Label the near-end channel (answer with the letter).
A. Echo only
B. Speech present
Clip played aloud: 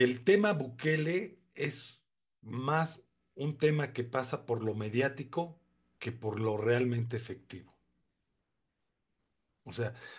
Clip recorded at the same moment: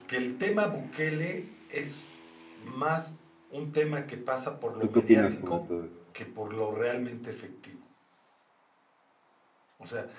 B